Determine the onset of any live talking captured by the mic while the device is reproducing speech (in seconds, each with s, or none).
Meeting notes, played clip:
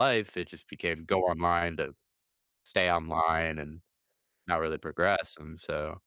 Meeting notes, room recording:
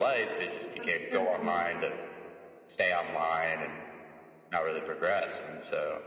0.8 s